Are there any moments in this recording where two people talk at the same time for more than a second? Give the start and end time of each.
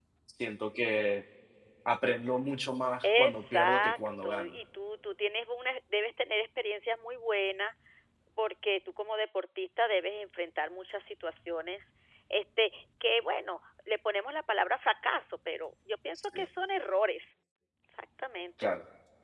3.0-4.5

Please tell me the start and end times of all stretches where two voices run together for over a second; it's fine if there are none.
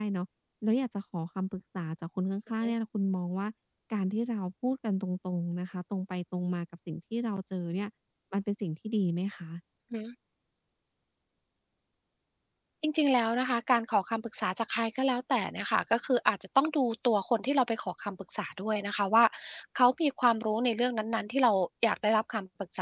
none

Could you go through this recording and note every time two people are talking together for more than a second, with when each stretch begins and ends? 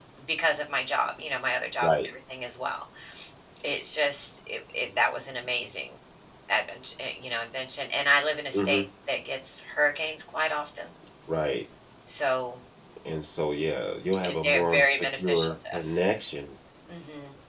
14.2-16.0

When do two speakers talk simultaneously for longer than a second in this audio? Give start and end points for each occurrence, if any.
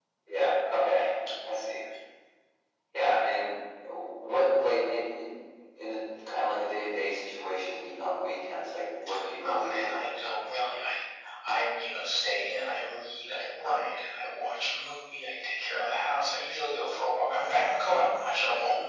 none

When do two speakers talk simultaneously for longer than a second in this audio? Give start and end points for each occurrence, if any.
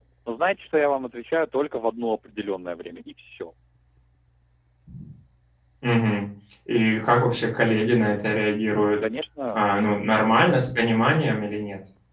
none

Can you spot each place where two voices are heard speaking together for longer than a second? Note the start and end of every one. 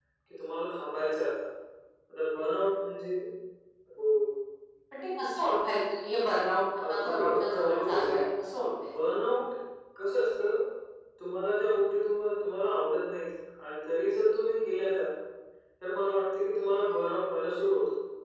6.9-8.2

